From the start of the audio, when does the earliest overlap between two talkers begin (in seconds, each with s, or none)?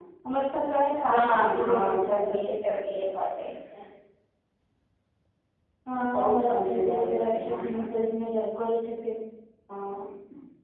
1.1 s